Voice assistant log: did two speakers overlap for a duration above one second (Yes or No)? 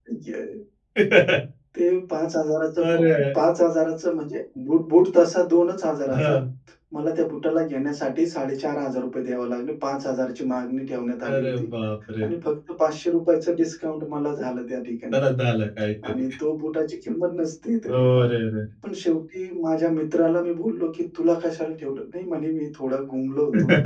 No